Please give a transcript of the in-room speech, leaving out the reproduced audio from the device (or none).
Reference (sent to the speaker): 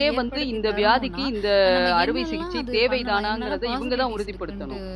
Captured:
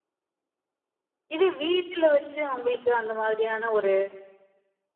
இதே வீட்ல வச்சு அவங்களுக்கு அந்த மாதிரியான ஒரு